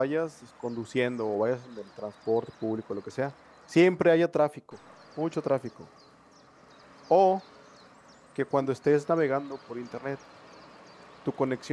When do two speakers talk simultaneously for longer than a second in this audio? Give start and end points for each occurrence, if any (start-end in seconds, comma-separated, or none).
none